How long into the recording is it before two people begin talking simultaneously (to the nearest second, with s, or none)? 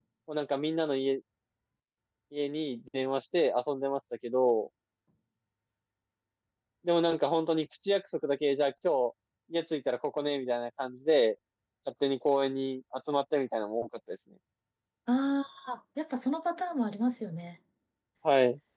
none